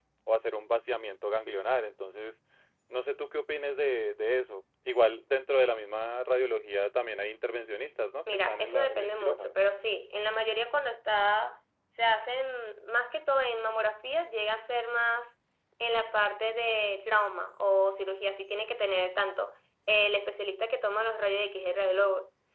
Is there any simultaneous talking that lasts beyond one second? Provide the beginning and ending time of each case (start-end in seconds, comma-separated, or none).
8.3-9.5